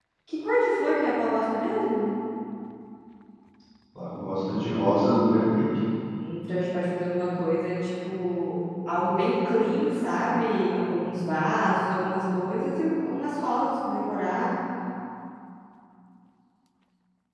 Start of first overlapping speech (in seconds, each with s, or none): none